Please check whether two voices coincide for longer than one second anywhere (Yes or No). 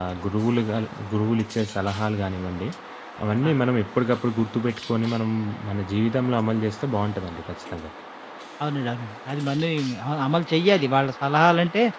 No